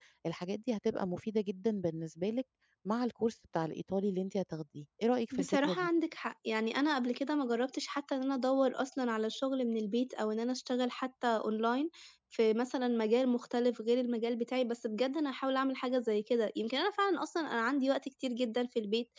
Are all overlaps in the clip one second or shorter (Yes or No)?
Yes